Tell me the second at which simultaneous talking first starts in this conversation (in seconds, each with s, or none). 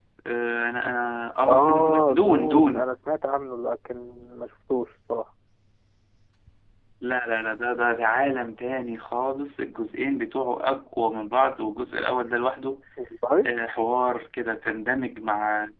1.4 s